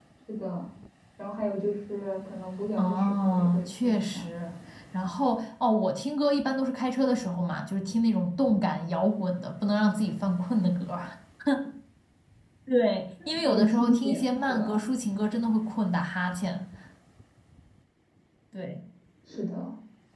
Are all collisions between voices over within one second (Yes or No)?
No